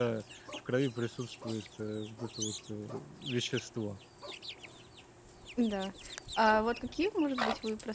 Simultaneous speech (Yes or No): No